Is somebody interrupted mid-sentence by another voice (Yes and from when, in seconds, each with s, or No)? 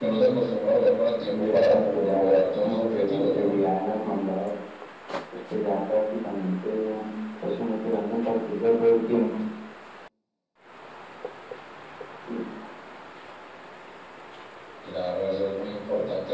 Yes, from 1.3 s